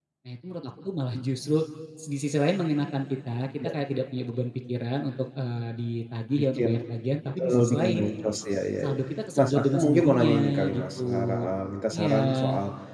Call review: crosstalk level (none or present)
present